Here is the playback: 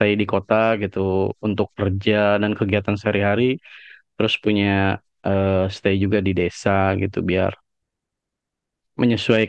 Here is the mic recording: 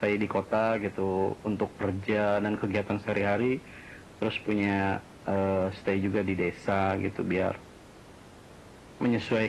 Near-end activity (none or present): none